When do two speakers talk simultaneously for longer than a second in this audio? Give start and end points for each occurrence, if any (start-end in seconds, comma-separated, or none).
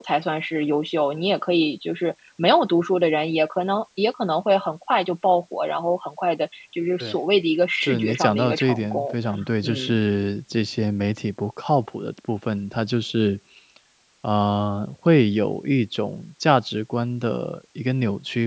7.8-9.1